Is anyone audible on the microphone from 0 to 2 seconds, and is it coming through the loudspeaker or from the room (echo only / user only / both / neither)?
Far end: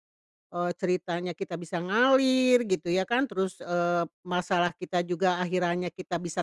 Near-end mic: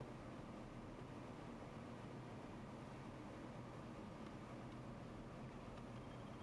neither